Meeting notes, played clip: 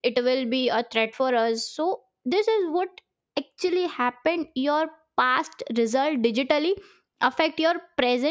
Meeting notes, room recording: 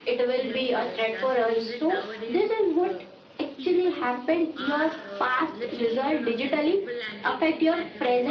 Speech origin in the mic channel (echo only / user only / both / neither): both